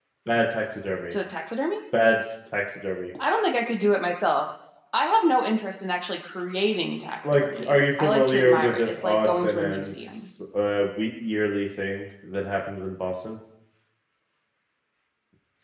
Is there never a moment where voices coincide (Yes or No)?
No